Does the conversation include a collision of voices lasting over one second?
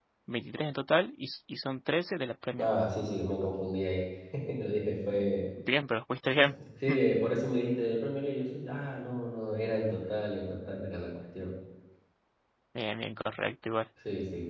No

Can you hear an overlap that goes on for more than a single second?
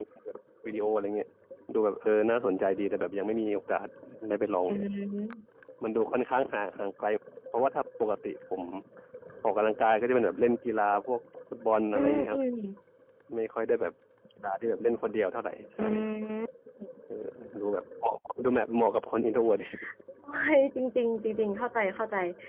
No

